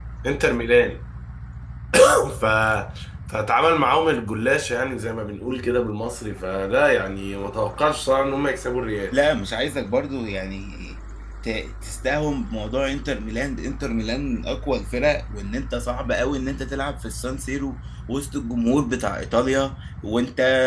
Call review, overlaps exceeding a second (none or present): none